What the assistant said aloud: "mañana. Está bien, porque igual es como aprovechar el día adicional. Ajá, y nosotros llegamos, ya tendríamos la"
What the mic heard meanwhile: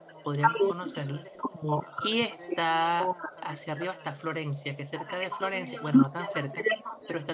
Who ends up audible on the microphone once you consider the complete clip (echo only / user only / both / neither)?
both